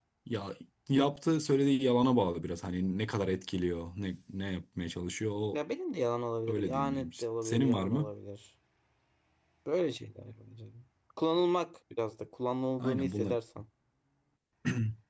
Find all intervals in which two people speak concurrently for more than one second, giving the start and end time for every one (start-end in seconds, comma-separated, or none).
6.5-8.1